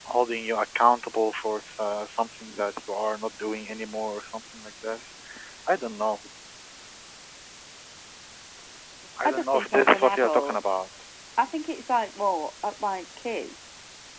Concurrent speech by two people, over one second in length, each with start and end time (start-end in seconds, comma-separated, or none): 9.2-10.6